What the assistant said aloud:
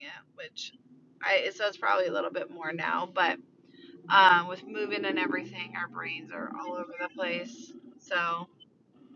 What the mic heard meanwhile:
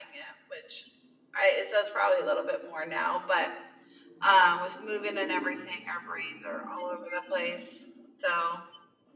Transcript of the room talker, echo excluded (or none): none